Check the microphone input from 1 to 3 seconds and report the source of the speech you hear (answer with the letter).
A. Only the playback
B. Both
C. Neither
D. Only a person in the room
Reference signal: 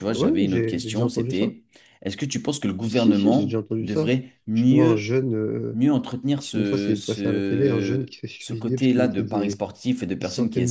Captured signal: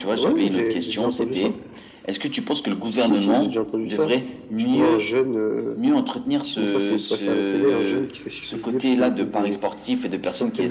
A